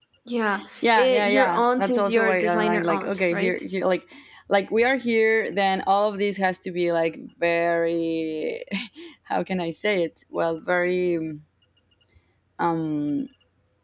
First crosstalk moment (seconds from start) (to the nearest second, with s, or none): 1 s